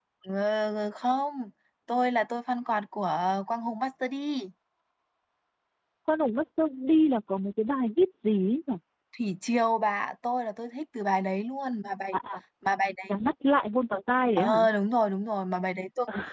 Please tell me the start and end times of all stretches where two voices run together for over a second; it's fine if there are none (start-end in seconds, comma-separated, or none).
none